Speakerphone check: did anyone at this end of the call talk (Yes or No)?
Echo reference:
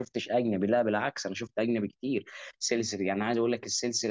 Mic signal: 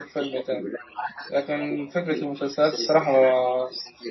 Yes